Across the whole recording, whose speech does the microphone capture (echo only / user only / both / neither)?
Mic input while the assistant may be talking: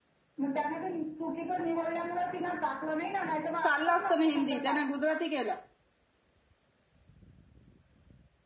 both